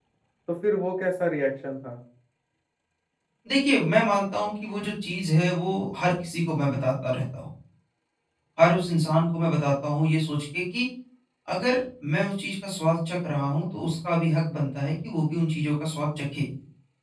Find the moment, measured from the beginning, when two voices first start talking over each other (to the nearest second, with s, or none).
none